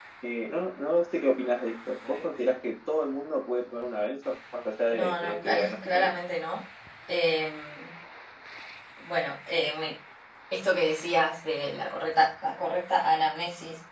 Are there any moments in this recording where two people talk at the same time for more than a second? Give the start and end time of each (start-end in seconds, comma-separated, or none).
4.9-6.1